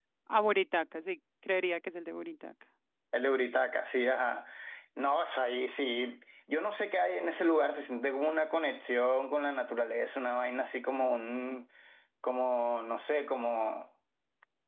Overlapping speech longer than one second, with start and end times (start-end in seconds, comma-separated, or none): none